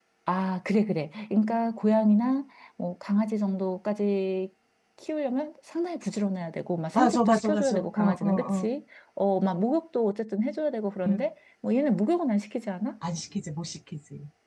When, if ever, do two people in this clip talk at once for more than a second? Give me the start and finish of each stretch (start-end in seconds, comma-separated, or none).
6.9-8.7